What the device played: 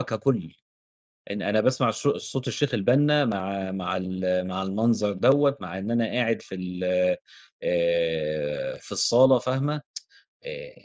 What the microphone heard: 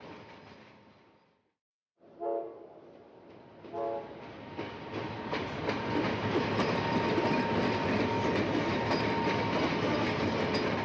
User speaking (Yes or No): No